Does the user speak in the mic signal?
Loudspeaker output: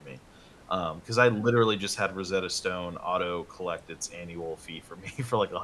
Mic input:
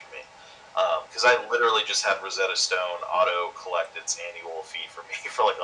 No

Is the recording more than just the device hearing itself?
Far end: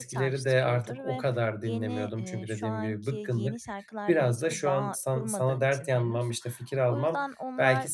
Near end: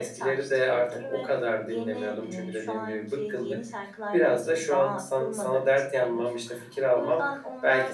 No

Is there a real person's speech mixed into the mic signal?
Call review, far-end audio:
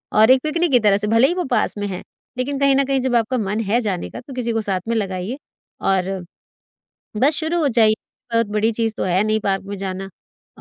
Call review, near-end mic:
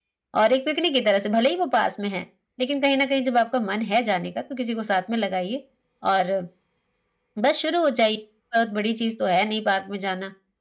No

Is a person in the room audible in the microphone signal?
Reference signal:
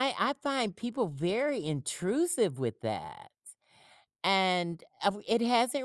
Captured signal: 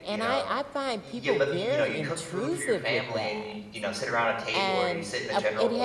Yes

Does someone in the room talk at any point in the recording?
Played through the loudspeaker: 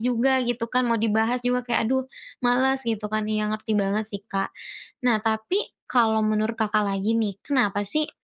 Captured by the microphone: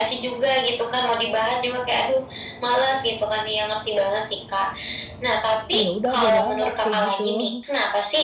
Yes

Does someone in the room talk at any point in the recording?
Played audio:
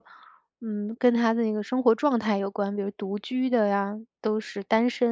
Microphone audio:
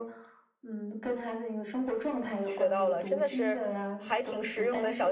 Yes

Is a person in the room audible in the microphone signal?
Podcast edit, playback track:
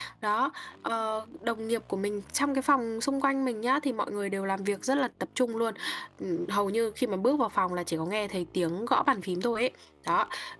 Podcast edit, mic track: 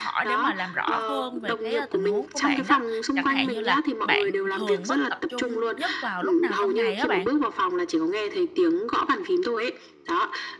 Yes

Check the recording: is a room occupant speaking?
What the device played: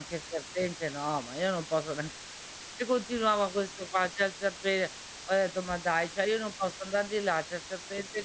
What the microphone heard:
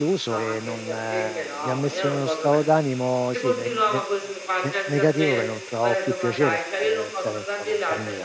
Yes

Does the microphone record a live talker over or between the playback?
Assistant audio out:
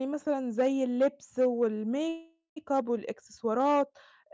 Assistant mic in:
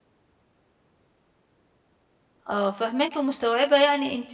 Yes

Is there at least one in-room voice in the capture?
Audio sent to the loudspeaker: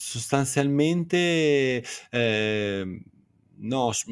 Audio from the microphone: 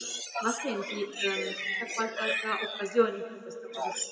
Yes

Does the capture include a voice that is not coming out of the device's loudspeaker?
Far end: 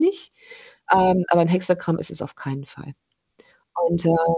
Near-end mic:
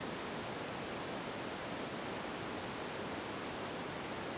No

